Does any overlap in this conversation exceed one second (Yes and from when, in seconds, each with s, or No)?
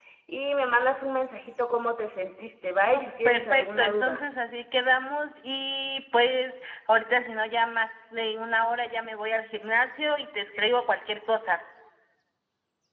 Yes, from 2.9 s